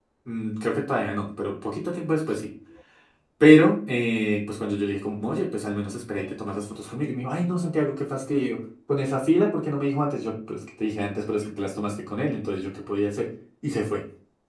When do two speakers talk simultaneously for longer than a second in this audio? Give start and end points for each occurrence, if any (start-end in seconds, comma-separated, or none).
none